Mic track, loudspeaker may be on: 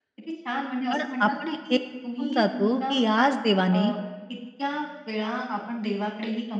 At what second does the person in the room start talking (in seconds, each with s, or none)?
0.9 s